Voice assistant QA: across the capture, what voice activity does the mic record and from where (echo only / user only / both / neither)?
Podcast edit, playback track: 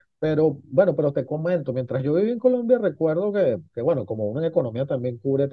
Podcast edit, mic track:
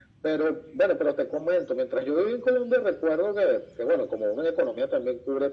echo only